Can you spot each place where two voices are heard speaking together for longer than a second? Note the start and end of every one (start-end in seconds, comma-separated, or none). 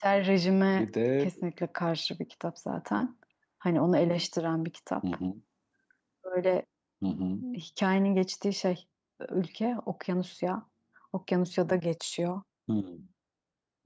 none